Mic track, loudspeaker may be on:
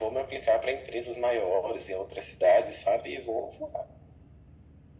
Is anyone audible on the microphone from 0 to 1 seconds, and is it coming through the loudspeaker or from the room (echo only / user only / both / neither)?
echo only